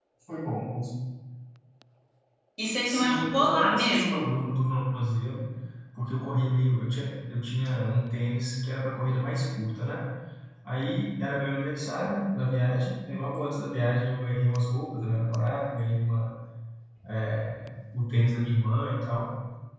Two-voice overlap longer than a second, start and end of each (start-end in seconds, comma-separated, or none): 2.8-4.2